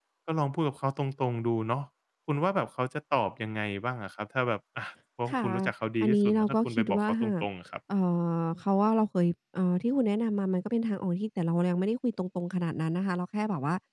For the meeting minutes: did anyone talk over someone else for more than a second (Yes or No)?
Yes